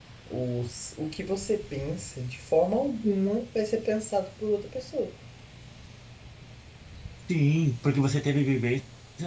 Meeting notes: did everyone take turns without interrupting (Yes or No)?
Yes